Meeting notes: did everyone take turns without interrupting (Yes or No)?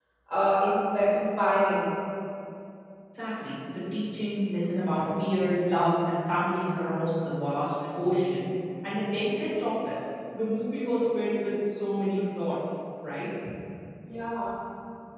Yes